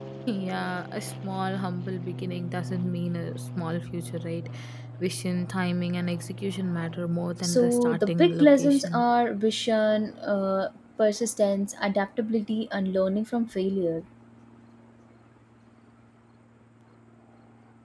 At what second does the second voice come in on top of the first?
7.4 s

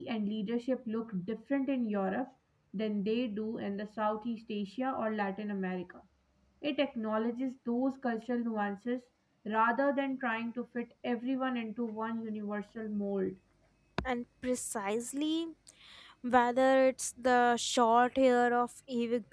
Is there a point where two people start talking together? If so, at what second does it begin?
none

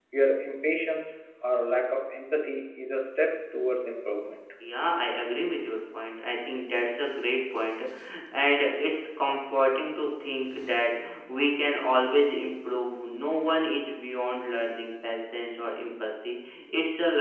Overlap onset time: none

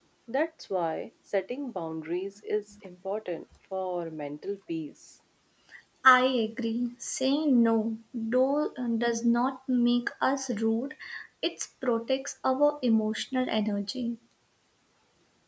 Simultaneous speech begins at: none

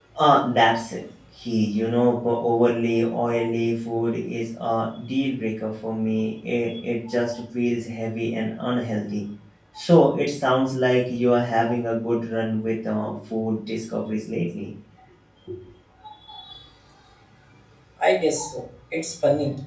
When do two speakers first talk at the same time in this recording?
none

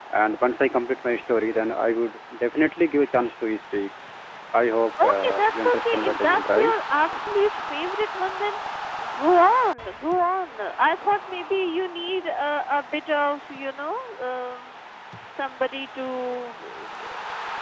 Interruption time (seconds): 5.0 s

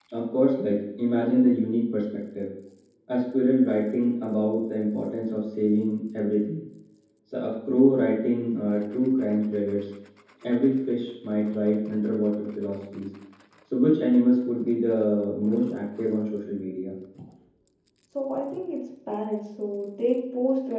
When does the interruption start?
none

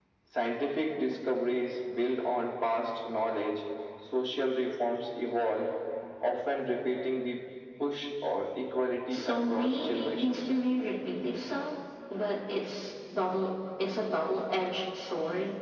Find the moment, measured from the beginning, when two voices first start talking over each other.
9.1 s

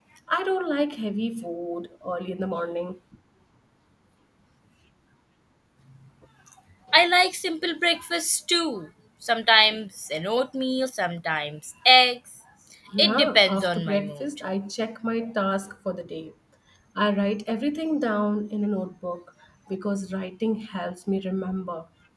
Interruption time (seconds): 13.0 s

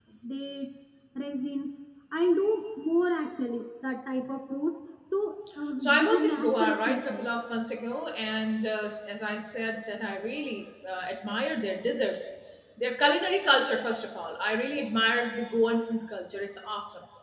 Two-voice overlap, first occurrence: 5.8 s

